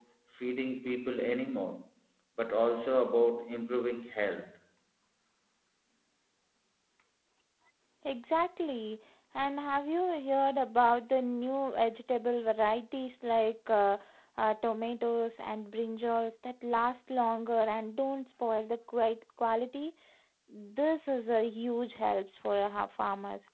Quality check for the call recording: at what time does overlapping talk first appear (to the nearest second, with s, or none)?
none